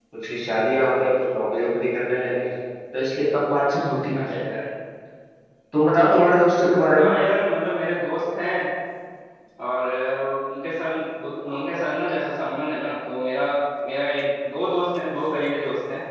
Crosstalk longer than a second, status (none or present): none